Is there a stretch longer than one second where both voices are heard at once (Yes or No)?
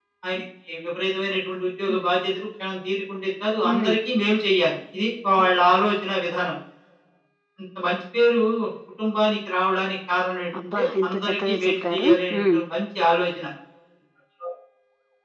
Yes